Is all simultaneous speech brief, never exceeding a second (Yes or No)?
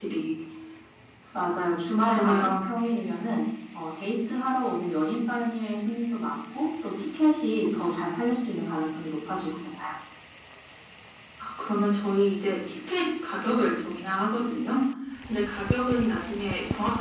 Yes